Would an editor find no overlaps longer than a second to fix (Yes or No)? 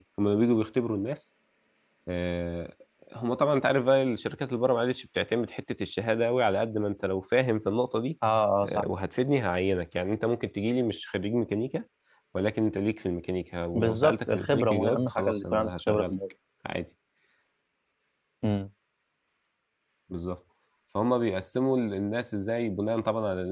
No